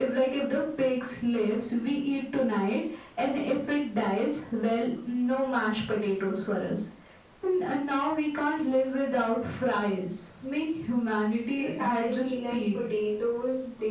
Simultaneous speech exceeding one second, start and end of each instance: 11.5-12.8

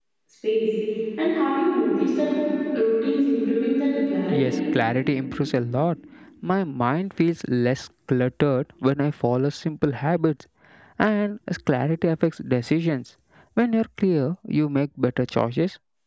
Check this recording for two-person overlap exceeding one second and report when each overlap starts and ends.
none

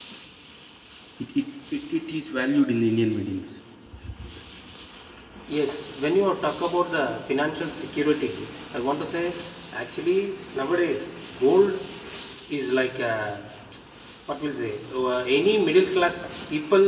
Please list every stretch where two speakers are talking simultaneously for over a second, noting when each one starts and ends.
none

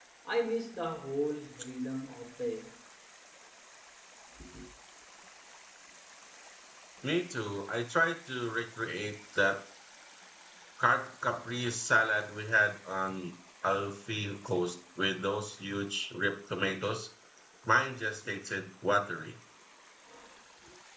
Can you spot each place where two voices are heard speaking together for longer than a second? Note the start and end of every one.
none

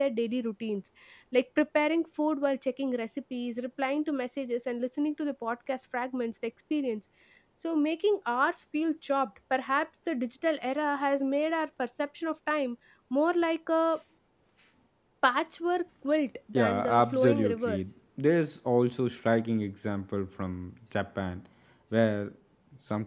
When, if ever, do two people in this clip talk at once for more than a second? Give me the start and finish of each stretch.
16.6-17.8

